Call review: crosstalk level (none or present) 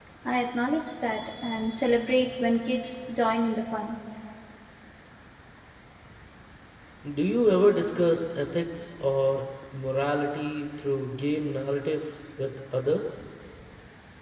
none